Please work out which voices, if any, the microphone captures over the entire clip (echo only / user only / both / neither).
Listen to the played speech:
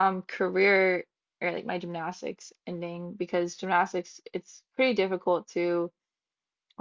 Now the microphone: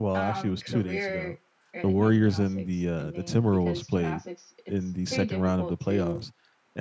both